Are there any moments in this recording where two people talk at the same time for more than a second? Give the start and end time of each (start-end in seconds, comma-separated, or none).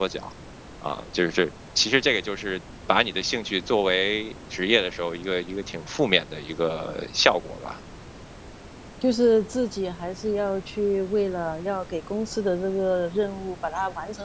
none